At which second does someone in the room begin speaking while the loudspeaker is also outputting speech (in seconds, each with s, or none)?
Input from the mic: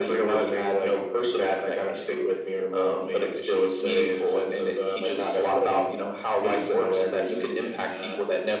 none